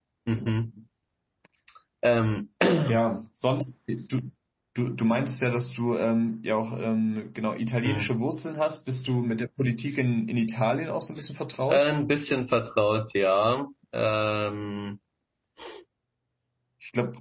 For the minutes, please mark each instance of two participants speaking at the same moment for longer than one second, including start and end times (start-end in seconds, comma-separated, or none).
none